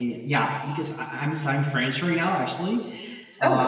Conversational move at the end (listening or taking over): listening